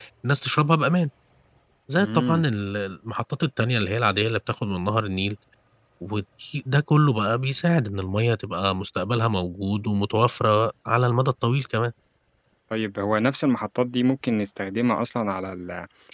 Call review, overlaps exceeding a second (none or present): none